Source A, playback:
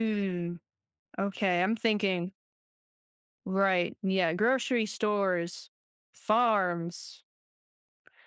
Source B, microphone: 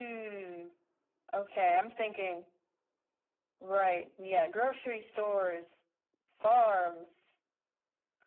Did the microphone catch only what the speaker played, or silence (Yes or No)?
Yes